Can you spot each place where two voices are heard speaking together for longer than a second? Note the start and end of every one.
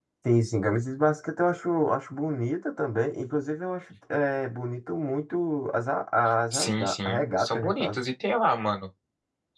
6.5-8.1

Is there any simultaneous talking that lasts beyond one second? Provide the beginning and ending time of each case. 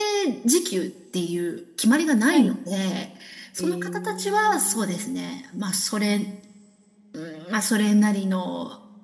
3.6-5.1

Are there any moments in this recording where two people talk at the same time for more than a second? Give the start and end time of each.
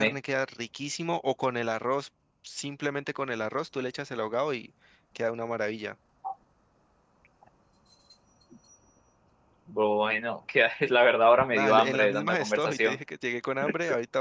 11.5-13.0

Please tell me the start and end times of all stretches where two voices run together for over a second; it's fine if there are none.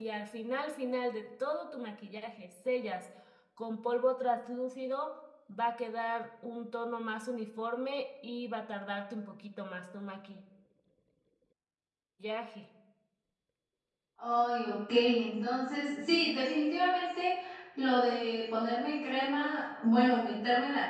none

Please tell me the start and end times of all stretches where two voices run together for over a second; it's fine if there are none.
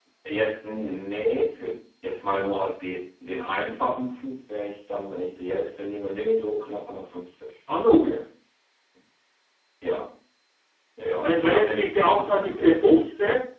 11.2-13.1

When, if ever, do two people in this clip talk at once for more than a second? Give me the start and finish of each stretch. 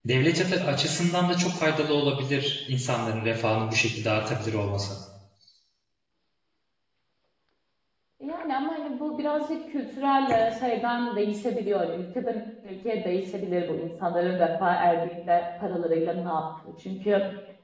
none

